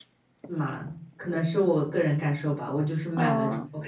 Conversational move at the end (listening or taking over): listening